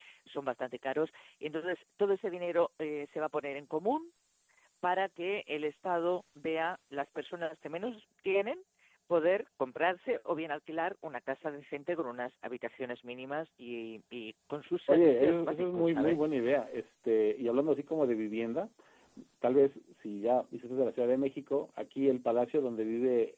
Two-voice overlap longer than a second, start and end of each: 14.9-16.3

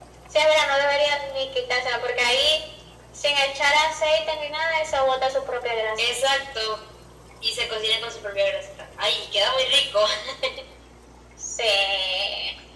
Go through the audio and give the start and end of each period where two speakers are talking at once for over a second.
none

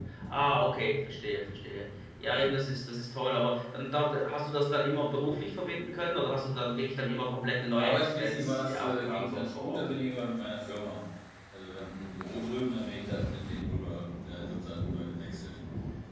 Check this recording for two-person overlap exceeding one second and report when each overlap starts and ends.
7.8-9.9

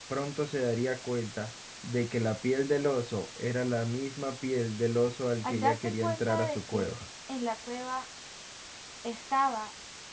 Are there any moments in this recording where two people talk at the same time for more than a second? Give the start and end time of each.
5.4-6.9

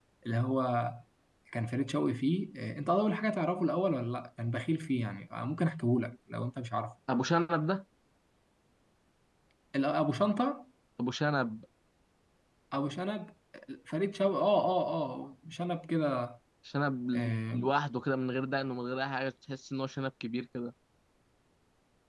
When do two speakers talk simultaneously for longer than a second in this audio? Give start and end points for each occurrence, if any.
none

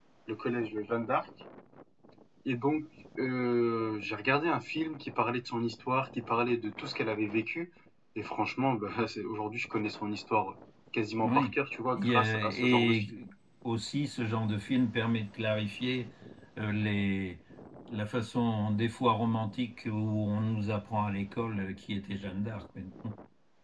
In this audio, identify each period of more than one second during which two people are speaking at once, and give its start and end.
12.0-13.2

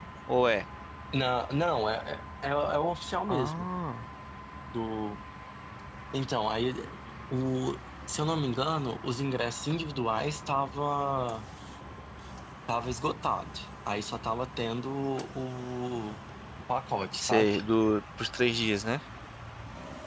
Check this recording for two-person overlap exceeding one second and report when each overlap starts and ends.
none

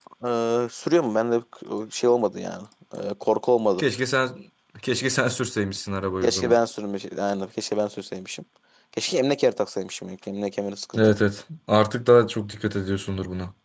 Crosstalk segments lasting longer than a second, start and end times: none

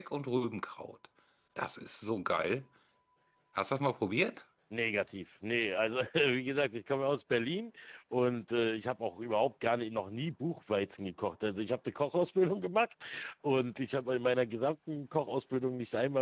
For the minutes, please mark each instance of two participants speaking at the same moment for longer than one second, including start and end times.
none

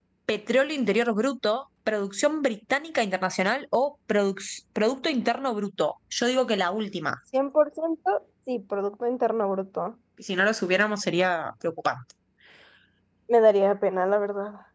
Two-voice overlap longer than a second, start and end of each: none

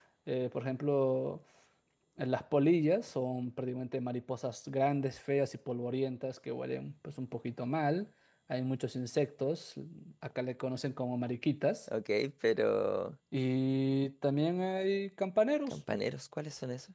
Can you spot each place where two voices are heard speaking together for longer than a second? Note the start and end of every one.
none

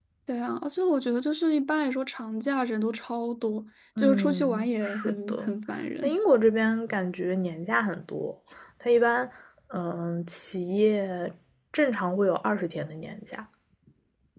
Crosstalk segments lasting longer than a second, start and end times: 4.0-5.5

